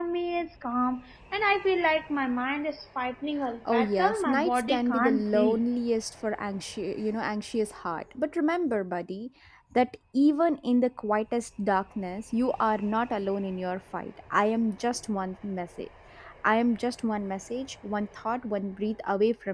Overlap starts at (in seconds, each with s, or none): 3.6 s